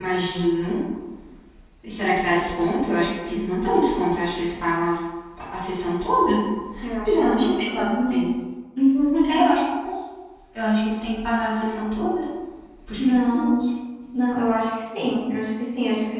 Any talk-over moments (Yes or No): Yes